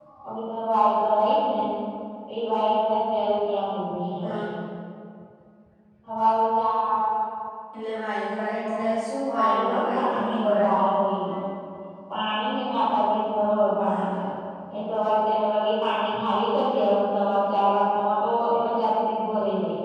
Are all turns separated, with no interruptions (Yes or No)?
No